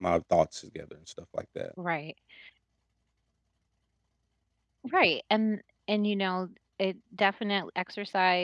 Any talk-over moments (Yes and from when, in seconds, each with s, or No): No